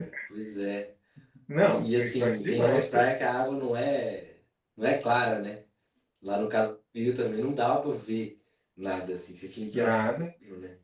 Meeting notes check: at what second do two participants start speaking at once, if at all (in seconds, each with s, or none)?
1.6 s